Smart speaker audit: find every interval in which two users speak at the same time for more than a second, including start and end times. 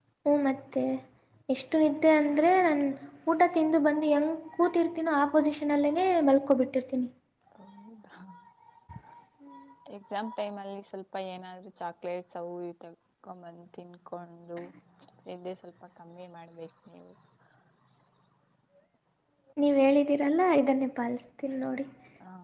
none

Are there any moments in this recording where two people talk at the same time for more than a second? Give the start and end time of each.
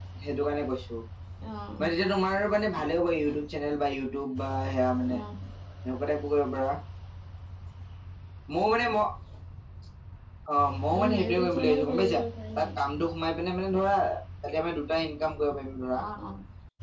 10.9-12.2

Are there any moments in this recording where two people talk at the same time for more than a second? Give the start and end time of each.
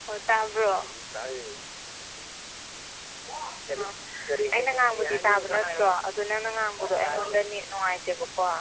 4.5-6.0

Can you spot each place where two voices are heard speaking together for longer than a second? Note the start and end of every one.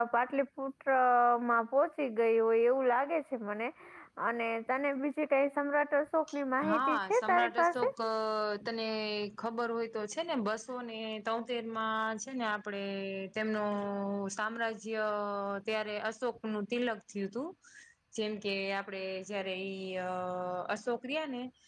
6.7-7.9

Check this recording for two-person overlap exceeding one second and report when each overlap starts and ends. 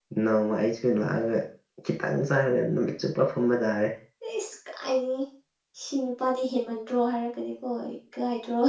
none

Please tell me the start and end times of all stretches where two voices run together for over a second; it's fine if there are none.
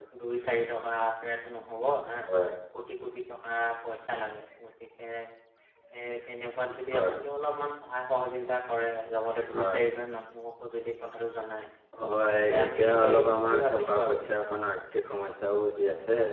12.3-14.2

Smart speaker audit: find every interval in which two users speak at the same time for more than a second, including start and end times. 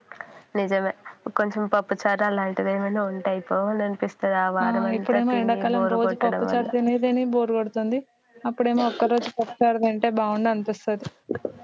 4.6-6.7

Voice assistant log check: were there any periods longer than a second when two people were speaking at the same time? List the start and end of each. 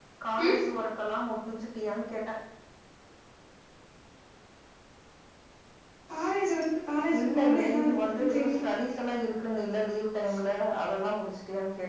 7.2-8.6

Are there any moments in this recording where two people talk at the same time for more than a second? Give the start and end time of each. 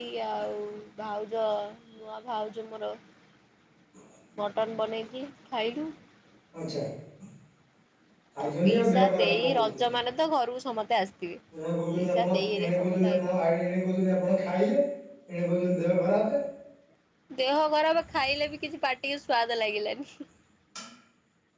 8.6-9.9, 12.0-13.4

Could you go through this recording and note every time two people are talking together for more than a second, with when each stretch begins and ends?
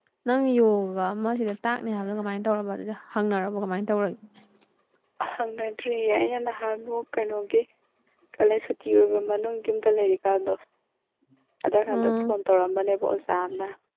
none

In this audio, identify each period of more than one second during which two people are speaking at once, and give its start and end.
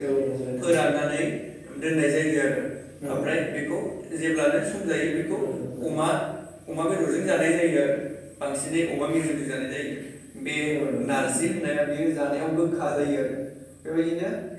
none

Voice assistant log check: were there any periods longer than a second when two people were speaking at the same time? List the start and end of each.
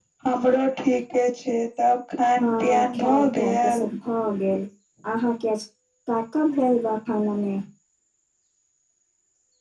2.4-3.9

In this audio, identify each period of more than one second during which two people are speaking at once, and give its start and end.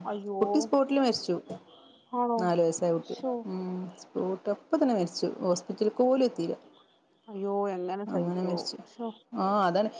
none

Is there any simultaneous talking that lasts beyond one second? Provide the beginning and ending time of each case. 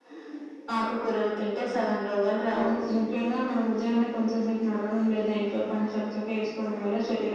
none

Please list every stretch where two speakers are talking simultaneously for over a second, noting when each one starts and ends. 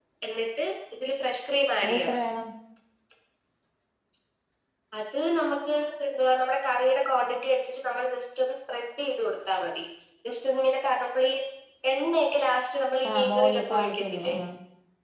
13.1-14.3

